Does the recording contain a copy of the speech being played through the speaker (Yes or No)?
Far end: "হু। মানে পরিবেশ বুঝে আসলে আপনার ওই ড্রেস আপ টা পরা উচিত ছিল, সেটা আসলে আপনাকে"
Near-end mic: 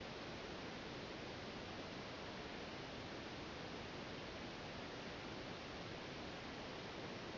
No